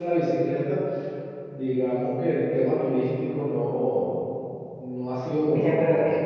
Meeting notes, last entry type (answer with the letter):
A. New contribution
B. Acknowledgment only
A